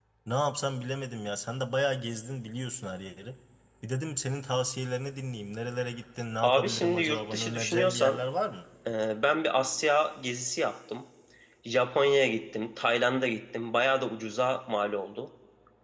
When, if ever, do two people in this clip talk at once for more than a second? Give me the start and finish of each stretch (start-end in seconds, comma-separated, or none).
6.4-8.2